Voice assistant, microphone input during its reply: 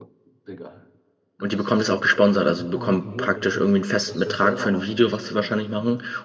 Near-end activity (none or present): present